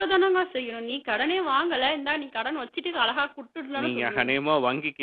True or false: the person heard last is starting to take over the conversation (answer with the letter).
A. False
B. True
B